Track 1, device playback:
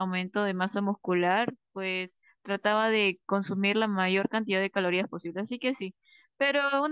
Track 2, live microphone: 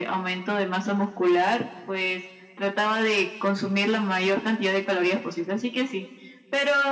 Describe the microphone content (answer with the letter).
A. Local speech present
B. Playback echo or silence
B